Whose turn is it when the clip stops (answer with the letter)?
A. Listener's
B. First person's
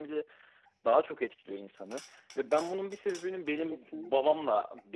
B